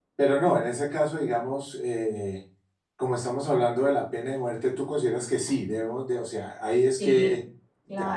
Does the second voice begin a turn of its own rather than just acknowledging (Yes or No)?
Yes